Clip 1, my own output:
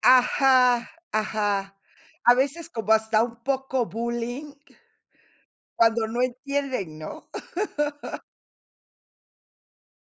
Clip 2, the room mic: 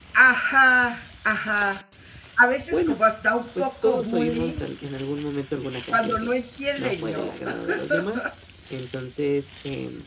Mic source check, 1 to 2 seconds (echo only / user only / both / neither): echo only